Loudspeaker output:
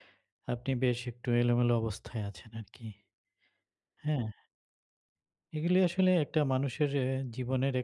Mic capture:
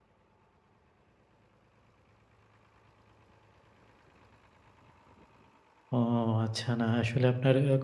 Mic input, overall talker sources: user only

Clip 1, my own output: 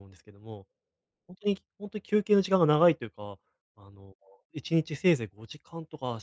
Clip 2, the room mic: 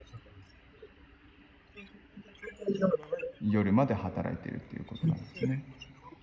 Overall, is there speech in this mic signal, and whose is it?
both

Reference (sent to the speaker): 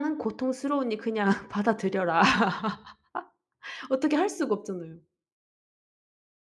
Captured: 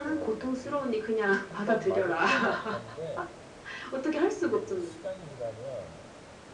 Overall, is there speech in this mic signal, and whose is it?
both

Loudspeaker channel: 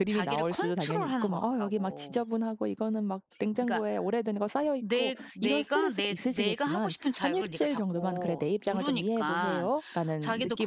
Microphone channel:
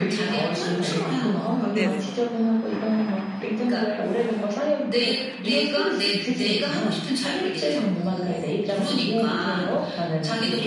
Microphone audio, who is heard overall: both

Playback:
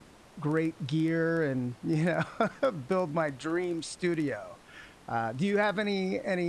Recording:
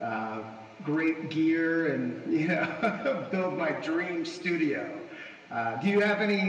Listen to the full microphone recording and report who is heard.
echo only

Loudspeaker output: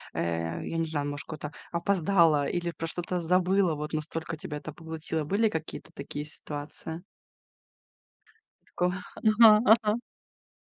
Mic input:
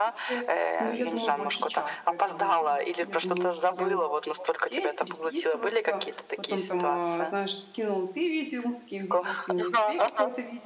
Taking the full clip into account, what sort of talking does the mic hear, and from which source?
both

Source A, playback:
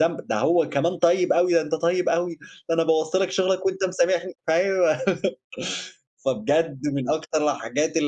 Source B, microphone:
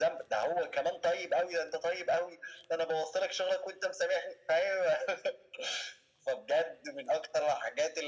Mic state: echo only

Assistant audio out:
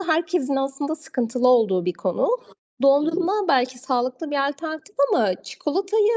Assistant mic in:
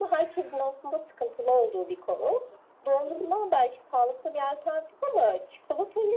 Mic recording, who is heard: echo only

